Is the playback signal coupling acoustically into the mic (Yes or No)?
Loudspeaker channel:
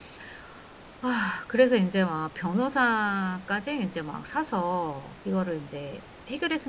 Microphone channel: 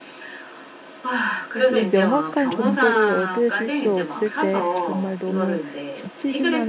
Yes